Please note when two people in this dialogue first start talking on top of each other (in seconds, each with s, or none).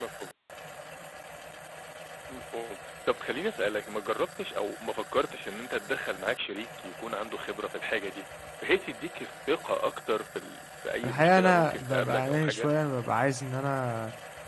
11.0 s